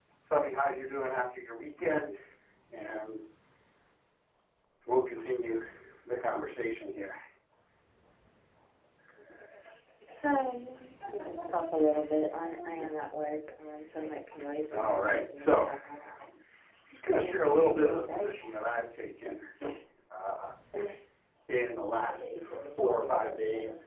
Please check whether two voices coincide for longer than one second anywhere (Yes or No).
Yes